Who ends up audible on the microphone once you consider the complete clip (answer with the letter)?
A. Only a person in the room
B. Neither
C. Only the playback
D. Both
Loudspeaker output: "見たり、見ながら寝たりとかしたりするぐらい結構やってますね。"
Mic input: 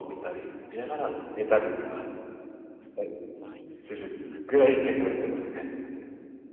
D